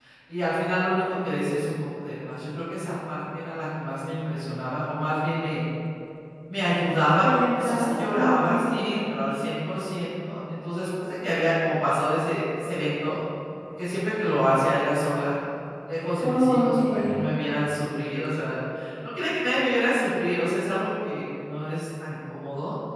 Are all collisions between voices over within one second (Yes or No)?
No